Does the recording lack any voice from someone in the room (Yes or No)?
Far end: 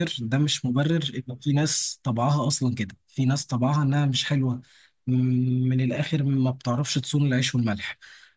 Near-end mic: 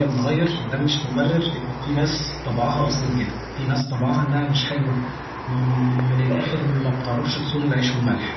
Yes